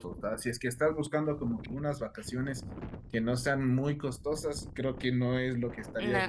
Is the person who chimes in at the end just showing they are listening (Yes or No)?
No